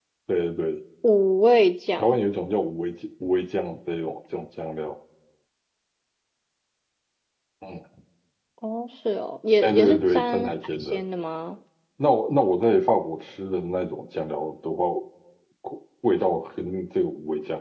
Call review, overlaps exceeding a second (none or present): present